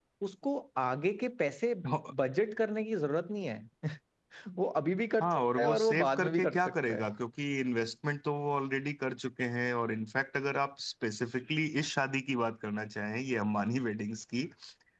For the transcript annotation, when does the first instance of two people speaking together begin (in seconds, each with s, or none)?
5.2 s